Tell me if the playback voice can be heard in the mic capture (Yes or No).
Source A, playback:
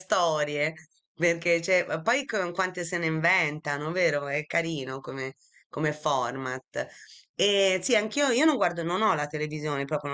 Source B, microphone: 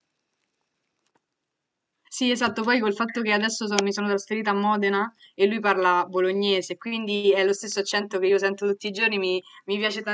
No